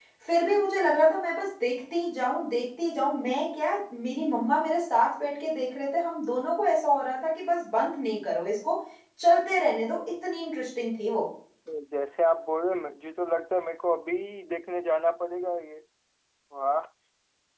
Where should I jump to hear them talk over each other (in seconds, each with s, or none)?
none